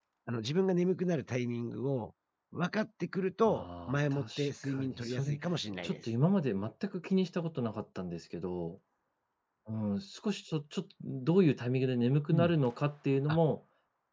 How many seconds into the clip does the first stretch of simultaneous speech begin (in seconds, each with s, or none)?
3.4 s